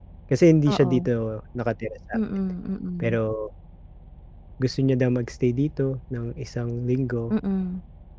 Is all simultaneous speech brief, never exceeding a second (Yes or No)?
Yes